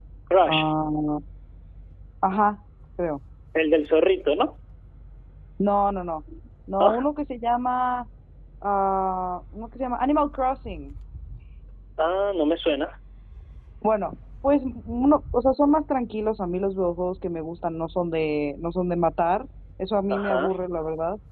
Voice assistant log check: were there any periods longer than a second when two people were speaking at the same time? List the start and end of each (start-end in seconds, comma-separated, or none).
none